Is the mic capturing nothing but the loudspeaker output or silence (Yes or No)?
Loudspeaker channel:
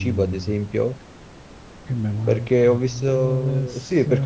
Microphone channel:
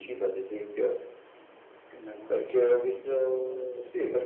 Yes